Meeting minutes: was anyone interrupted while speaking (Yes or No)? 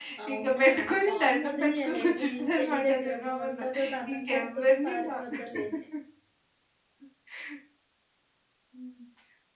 Yes